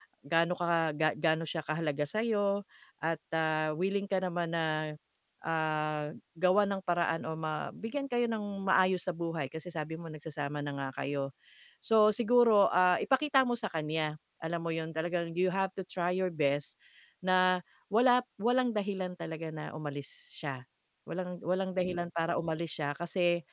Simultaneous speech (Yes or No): No